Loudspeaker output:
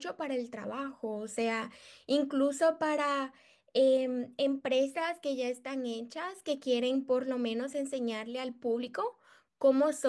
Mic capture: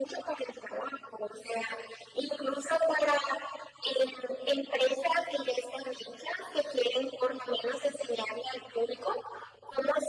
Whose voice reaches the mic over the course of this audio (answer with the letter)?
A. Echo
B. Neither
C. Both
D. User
A